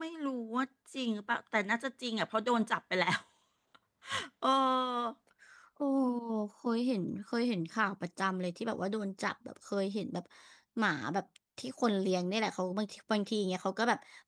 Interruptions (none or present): none